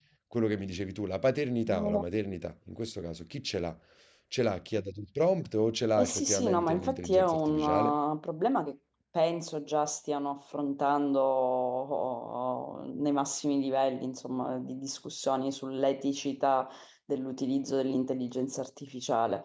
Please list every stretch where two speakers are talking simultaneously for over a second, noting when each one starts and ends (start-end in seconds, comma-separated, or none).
6.0-7.9